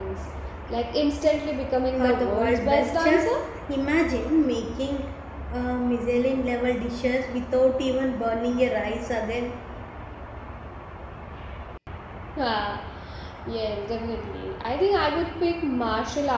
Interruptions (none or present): present